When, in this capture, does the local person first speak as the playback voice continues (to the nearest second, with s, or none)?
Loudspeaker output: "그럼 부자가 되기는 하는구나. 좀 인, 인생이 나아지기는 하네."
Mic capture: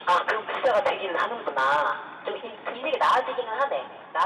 none